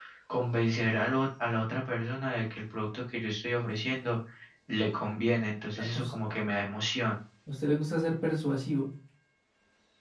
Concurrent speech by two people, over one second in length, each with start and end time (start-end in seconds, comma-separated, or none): none